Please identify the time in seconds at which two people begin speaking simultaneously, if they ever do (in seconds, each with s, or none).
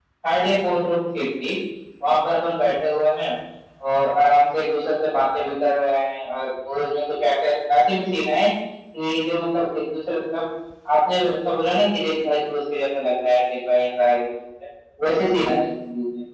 none